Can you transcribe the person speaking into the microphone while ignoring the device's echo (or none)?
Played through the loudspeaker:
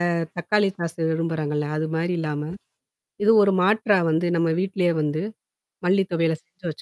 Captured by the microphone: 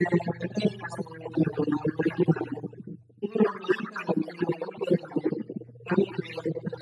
none